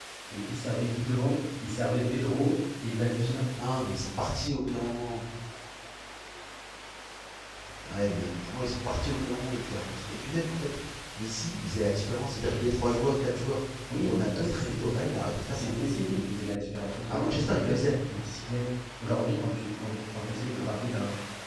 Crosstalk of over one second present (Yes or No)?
Yes